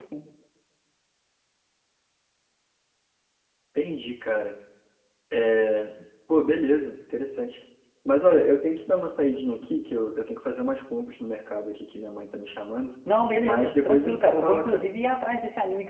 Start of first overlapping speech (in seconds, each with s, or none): 13.4 s